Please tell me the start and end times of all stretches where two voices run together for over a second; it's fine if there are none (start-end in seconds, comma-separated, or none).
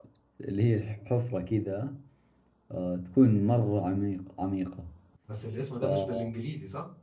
none